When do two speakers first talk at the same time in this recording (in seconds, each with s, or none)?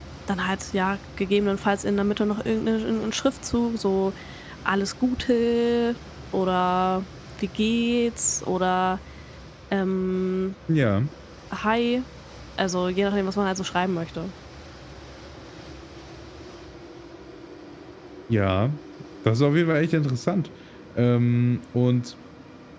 none